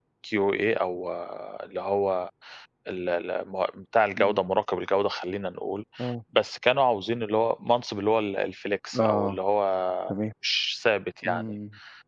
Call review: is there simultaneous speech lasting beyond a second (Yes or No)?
No